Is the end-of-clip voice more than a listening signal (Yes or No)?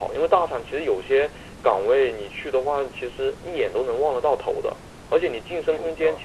No